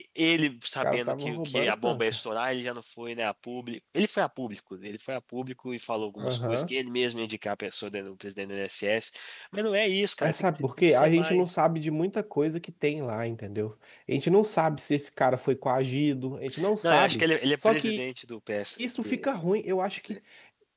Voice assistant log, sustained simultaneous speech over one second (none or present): present